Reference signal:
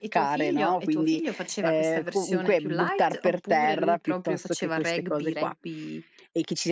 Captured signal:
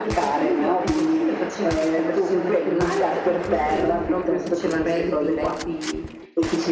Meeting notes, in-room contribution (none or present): none